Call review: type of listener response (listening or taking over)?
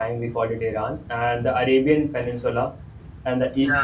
listening